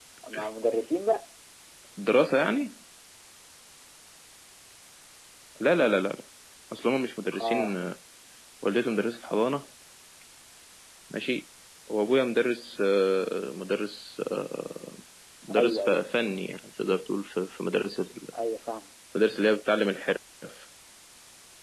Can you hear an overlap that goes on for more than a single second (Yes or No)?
No